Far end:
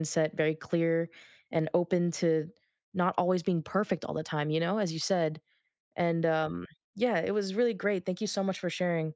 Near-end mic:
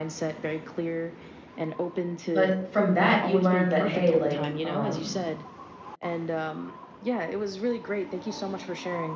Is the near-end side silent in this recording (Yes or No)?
No